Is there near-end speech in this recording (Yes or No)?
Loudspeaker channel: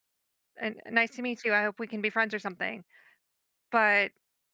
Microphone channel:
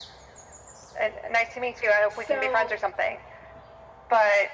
Yes